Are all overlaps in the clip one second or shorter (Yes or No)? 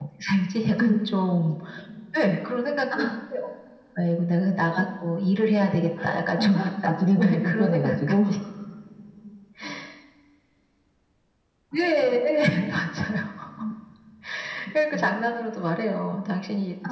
No